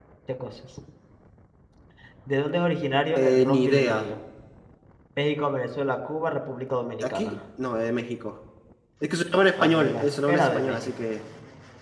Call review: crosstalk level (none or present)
present